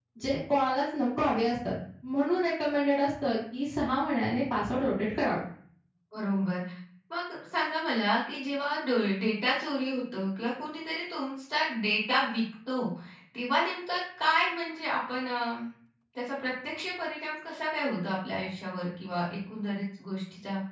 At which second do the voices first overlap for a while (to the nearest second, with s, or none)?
none